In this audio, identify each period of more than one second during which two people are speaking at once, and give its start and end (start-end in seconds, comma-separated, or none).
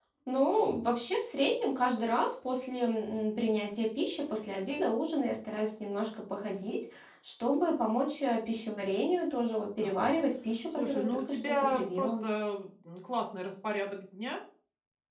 10.7-12.2